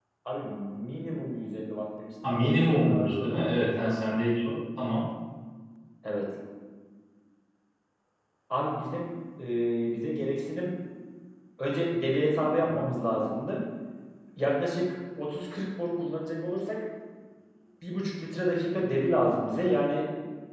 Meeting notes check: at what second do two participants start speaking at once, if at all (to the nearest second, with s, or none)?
2 s